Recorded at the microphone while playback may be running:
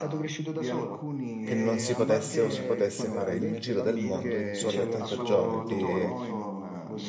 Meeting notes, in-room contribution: present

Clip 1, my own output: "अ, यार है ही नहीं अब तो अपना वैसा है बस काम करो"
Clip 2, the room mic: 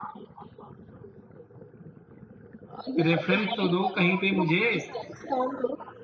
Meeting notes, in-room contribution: present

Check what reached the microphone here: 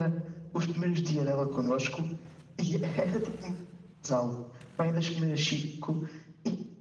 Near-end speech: none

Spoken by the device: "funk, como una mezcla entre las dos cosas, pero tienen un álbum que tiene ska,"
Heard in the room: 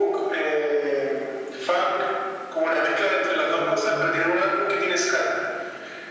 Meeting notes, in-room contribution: present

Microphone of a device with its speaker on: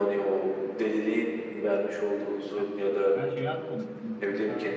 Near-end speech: present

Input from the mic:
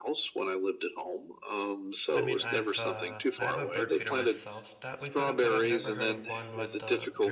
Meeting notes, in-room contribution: present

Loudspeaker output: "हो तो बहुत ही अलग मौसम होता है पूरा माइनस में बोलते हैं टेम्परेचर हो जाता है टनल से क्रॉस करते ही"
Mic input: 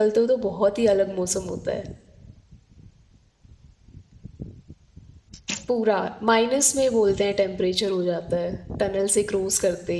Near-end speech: none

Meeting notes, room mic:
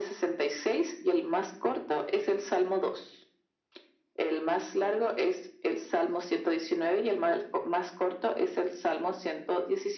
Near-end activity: none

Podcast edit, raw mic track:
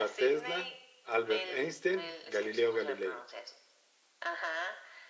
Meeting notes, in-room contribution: present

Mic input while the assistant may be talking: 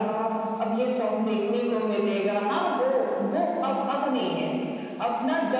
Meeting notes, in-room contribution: none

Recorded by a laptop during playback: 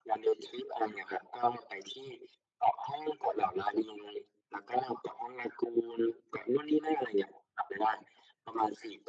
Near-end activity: none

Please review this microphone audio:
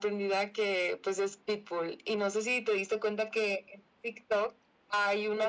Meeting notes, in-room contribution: none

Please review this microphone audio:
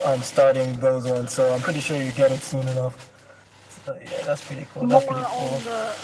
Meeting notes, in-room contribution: present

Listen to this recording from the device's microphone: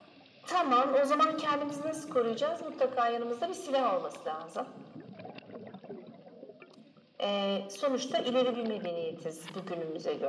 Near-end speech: none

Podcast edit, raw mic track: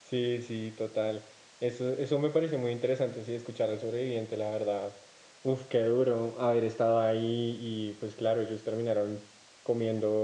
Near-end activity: present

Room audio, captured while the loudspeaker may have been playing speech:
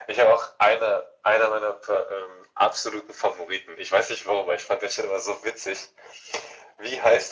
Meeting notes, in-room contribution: none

